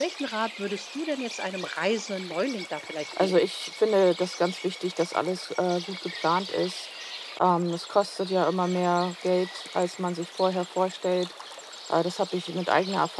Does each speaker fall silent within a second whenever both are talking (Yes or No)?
Yes